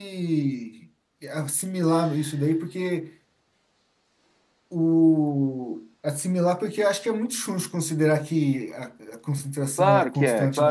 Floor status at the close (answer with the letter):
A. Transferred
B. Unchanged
A